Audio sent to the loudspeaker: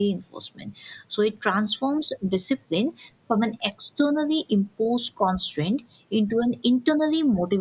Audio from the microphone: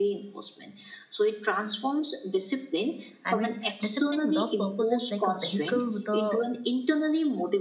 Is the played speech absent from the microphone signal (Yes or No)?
No